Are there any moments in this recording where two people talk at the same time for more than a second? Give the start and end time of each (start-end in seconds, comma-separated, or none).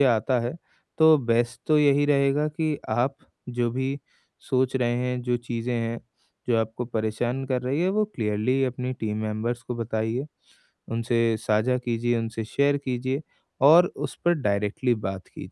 none